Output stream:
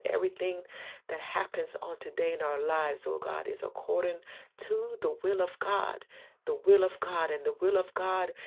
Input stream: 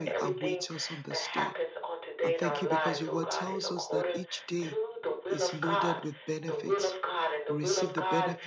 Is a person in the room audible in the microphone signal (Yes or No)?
Yes